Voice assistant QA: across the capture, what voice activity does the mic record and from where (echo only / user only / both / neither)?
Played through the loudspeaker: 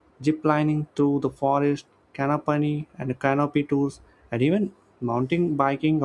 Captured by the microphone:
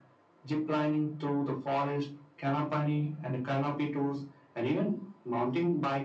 echo only